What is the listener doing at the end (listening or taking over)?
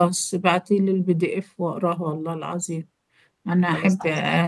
listening